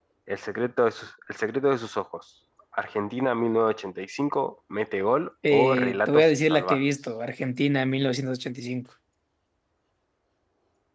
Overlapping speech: Yes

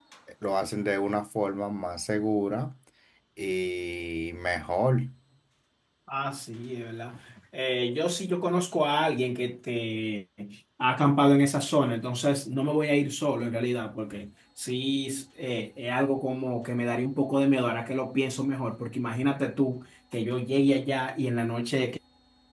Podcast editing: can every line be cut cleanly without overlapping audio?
Yes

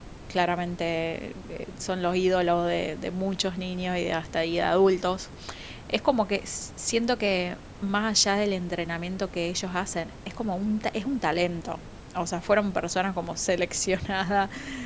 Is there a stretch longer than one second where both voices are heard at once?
No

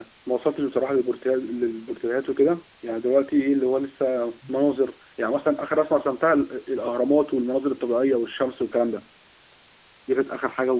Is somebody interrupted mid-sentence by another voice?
No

